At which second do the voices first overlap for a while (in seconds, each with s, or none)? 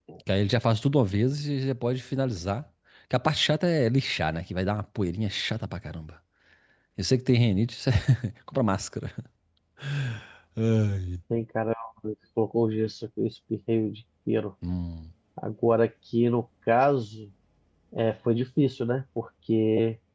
none